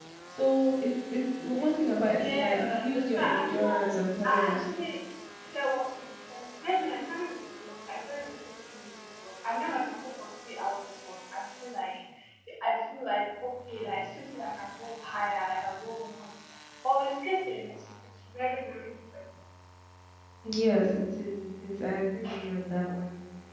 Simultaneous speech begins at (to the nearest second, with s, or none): 2 s